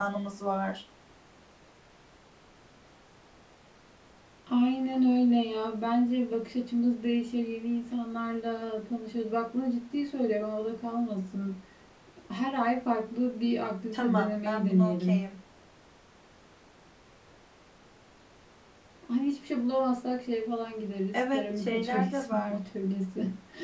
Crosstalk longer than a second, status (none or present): present